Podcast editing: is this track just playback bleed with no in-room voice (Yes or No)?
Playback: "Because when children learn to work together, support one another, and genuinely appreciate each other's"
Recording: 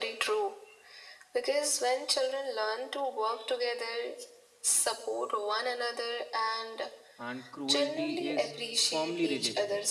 No